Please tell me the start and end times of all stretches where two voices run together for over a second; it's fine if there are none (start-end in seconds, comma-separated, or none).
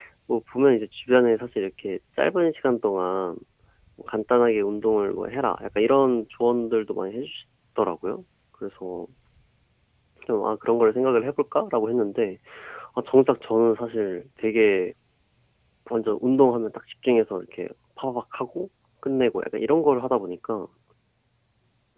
none